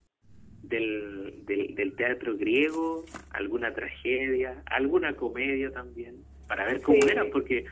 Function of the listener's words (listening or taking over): listening